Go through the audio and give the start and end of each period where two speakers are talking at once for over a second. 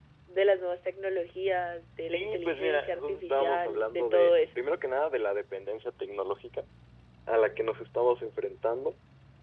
2.1-4.6

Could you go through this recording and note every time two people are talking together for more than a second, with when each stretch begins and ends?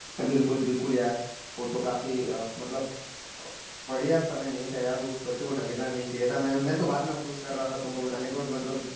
none

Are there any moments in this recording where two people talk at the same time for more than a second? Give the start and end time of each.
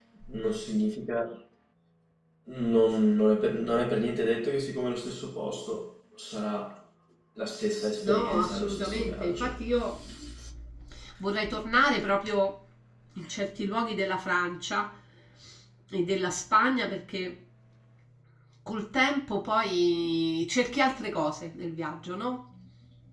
8.0-9.5

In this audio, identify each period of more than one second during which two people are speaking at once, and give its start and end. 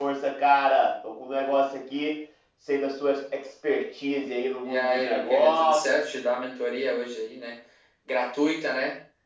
4.6-5.9

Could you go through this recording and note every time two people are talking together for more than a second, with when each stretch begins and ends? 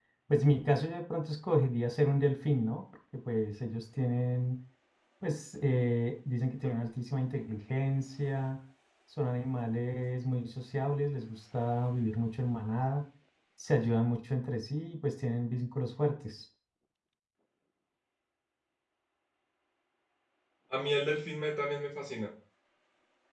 none

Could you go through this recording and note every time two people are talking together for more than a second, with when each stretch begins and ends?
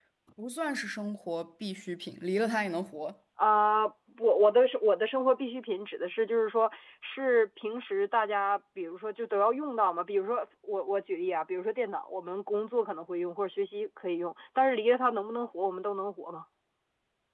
none

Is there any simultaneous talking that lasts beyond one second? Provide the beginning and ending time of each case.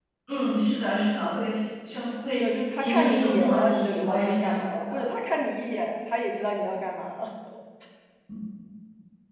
2.4-5.0

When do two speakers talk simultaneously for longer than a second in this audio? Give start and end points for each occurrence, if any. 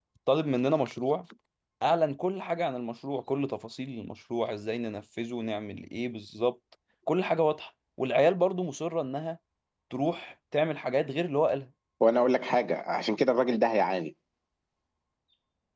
none

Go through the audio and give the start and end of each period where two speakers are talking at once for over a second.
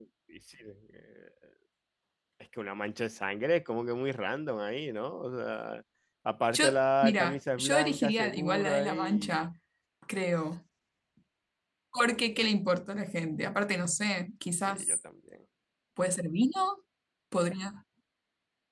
7.0-9.4

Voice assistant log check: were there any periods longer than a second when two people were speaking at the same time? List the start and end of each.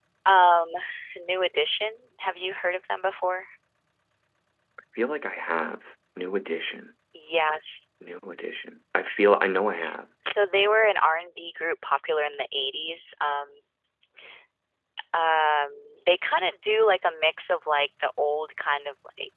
none

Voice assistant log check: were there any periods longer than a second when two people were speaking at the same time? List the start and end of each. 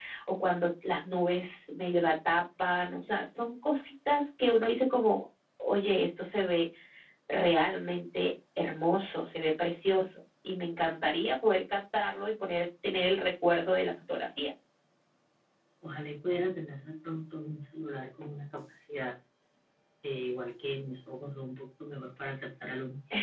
none

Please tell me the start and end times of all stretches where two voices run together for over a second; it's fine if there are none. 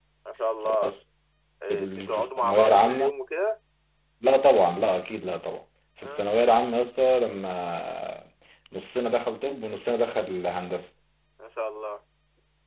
1.7-3.1

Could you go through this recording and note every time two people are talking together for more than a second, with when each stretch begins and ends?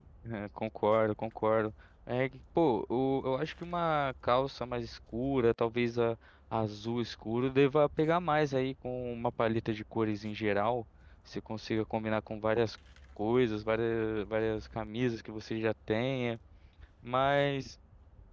none

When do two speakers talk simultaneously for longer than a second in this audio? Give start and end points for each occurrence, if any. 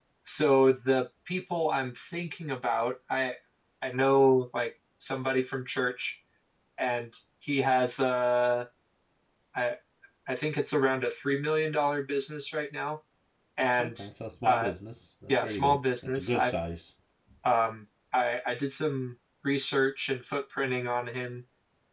15.3-16.5

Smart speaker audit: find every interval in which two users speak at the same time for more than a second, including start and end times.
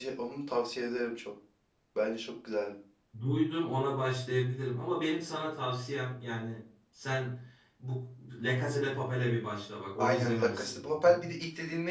10.0-11.3

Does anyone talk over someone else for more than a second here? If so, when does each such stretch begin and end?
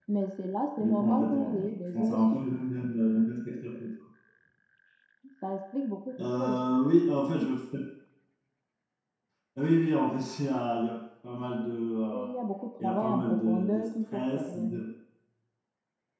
0.8-2.4, 12.8-14.7

